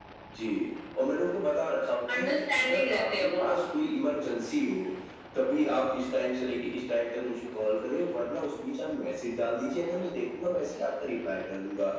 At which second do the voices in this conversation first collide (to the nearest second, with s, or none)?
2 s